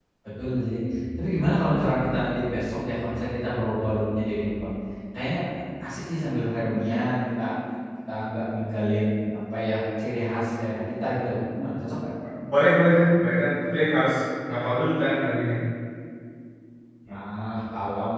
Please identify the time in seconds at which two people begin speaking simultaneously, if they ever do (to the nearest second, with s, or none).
none